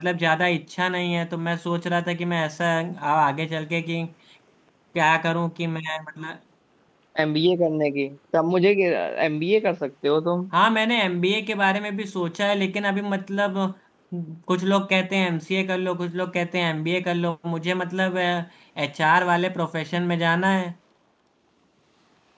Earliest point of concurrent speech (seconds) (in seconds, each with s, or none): none